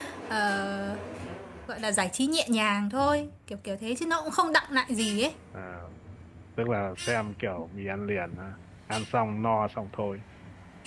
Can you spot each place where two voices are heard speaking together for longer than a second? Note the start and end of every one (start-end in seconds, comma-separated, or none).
none